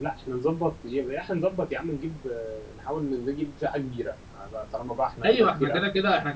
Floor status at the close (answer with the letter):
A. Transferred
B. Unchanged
A